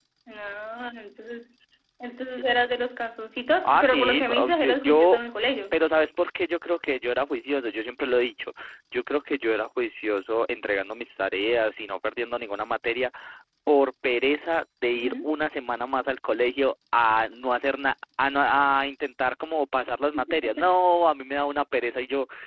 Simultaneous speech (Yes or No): Yes